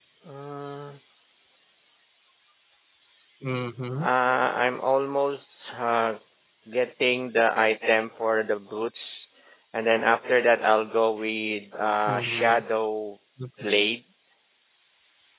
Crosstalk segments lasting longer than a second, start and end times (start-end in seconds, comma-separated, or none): none